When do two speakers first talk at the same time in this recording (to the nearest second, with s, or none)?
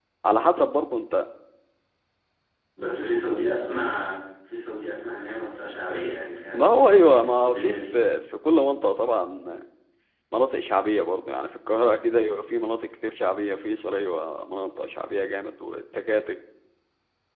7 s